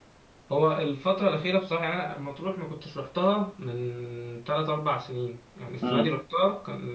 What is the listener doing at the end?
listening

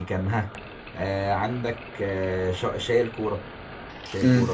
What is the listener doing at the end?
taking over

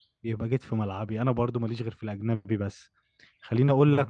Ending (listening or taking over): listening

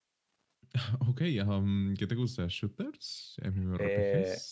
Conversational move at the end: taking over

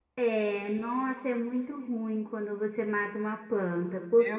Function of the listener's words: listening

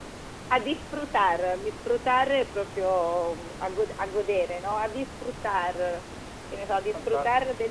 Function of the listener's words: listening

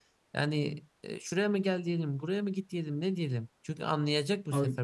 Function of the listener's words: listening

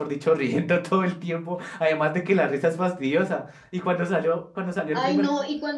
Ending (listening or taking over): taking over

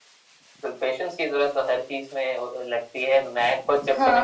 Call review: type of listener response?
listening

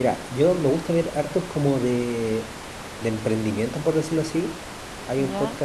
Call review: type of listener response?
listening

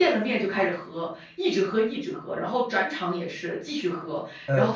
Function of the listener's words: listening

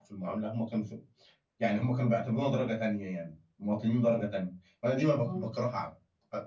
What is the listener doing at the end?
listening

